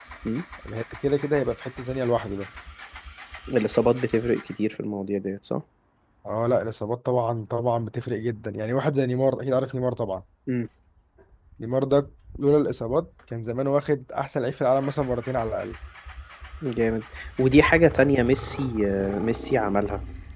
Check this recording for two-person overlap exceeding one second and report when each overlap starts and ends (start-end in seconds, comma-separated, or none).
none